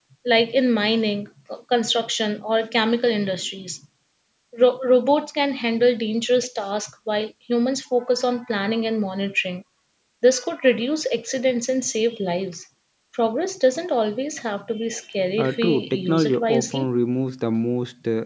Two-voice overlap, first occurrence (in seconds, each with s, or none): 15.4 s